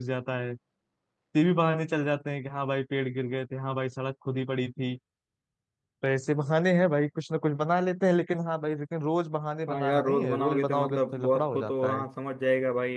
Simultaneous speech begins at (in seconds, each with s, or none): 9.7 s